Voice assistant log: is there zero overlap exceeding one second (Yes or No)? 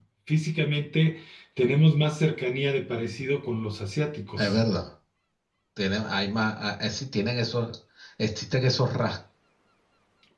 Yes